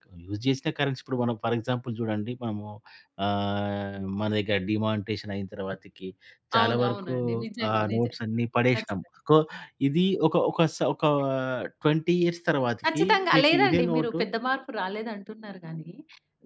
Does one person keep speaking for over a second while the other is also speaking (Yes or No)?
Yes